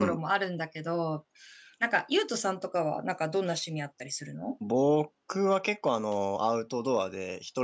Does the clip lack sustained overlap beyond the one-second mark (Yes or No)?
Yes